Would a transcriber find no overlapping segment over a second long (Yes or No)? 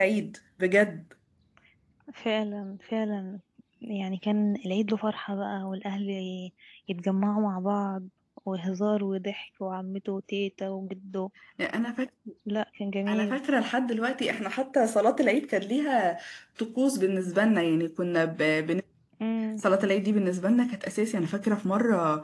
Yes